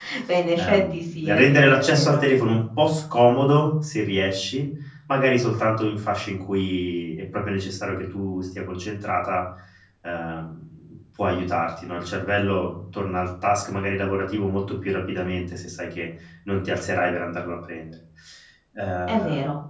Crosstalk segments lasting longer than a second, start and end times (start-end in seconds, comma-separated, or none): 0.6-2.2